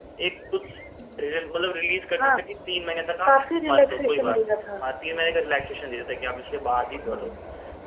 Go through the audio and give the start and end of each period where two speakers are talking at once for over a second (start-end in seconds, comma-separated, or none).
3.2-4.6